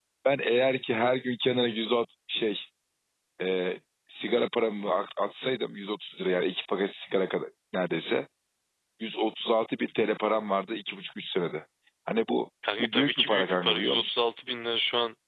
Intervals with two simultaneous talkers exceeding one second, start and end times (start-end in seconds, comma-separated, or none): 12.8-14.2